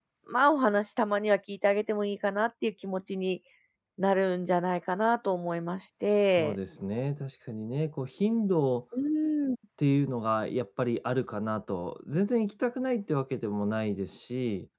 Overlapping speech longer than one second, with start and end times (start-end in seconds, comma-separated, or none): none